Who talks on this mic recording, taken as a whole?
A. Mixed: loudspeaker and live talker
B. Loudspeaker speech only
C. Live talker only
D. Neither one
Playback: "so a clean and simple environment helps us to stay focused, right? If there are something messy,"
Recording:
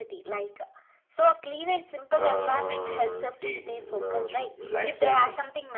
A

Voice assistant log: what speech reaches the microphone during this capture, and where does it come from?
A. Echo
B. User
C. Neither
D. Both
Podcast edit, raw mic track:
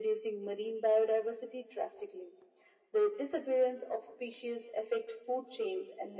A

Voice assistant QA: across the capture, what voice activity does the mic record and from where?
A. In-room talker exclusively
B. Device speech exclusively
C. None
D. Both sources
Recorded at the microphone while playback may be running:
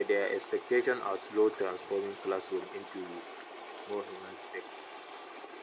B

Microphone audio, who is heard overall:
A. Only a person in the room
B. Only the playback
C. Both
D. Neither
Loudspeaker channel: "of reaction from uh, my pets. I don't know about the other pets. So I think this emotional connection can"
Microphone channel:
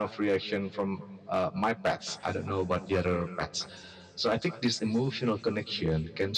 B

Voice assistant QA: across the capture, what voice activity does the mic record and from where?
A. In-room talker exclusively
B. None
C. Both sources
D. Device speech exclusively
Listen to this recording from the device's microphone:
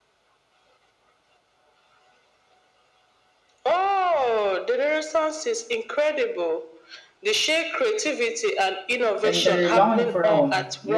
C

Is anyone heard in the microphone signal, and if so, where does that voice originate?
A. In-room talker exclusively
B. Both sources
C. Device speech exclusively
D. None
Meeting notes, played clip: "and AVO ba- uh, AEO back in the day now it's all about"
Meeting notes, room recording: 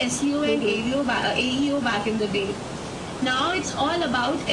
B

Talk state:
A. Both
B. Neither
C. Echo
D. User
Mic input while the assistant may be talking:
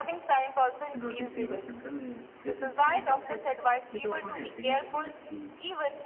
A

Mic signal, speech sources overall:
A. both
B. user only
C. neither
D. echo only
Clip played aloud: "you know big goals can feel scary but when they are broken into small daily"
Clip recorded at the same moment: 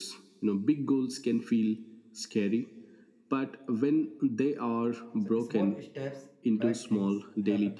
A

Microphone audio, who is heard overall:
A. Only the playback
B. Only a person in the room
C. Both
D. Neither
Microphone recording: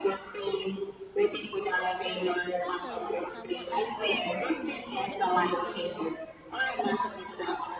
C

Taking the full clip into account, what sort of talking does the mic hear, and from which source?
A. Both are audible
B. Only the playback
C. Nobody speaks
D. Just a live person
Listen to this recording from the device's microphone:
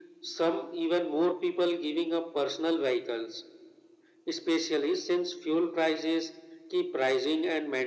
B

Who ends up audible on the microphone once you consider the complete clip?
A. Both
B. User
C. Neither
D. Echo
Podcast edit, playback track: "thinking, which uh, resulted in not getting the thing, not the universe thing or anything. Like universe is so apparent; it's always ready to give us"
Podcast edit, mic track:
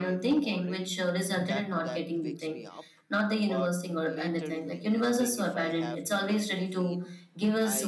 A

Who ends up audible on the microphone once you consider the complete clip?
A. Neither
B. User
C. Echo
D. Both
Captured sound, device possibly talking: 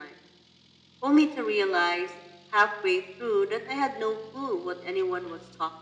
C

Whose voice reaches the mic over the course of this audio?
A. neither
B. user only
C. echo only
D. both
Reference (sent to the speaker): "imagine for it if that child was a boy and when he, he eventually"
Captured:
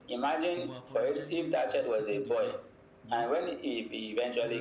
D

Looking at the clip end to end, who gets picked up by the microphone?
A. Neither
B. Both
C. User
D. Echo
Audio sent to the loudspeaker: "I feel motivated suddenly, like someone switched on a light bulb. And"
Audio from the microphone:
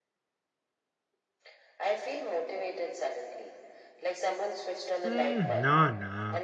B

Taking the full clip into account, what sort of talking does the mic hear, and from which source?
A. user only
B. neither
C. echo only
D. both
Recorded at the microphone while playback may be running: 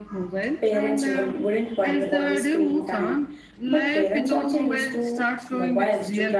D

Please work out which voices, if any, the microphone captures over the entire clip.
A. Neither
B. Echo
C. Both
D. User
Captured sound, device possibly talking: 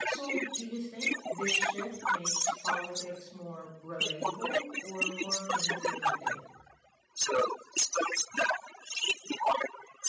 C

